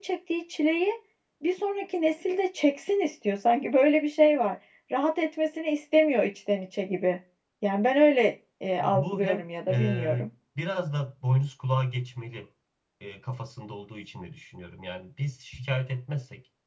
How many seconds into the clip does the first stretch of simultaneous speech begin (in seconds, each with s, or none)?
8.8 s